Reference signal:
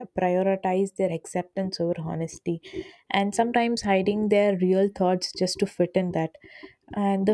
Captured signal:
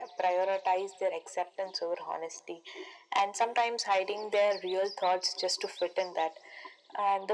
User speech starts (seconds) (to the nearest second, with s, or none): none